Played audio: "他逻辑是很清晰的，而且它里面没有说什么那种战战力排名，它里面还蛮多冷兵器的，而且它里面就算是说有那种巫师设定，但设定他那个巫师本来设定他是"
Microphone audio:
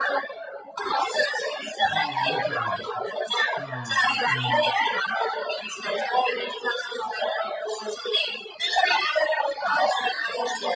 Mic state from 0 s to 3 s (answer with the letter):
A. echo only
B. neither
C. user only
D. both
D